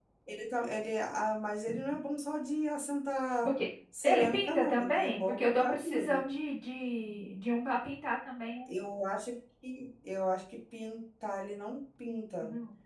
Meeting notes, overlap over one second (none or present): present